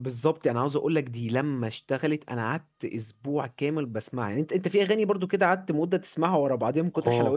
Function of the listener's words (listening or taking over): taking over